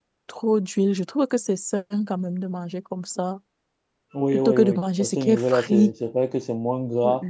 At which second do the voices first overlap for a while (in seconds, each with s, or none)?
4.3 s